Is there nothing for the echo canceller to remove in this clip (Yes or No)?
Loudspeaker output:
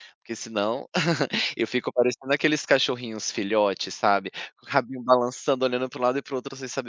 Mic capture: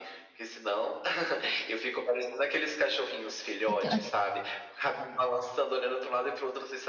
No